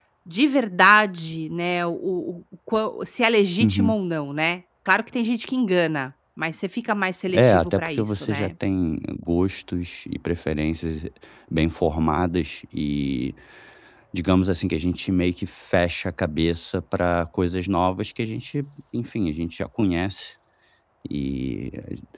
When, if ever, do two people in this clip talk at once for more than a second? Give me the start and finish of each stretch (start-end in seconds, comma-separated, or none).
7.3-8.5